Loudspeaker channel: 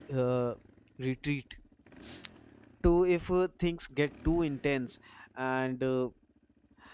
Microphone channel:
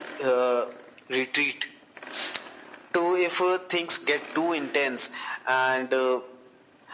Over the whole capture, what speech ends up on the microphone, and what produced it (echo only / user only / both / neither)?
echo only